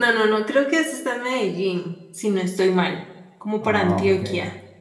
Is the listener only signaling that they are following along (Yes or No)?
Yes